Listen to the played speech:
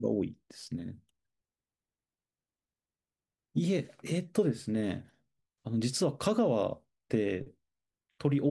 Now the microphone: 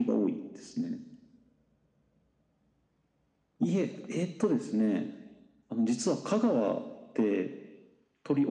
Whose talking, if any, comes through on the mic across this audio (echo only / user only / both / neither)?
echo only